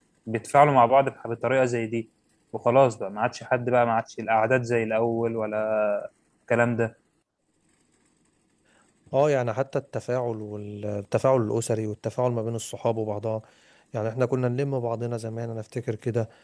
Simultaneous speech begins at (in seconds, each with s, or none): none